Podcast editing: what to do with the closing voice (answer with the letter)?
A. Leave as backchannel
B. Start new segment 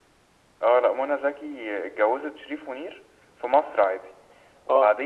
A